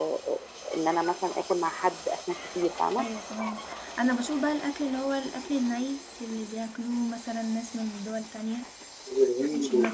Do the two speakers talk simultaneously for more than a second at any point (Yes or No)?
No